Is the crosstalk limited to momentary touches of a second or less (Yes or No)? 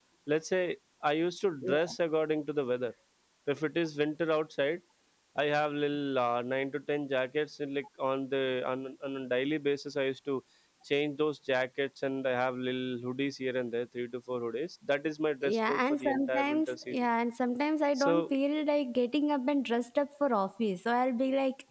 No